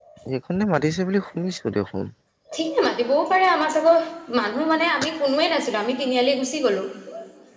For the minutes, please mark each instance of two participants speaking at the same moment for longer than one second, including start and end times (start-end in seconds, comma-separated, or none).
none